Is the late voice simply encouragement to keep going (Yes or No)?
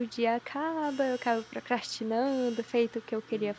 Yes